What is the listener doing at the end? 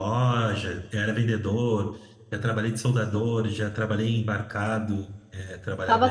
taking over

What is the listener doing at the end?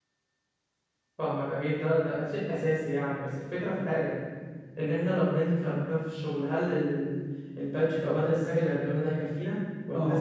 taking over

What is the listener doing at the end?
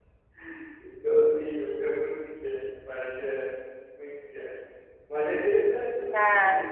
taking over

